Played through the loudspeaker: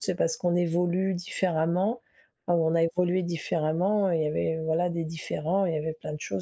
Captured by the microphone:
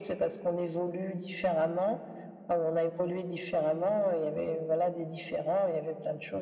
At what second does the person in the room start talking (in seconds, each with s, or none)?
none